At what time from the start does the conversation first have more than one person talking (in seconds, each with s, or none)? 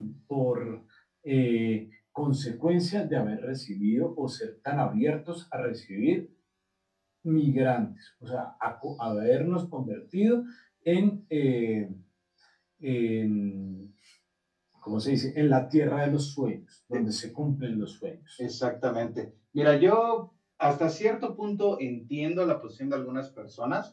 none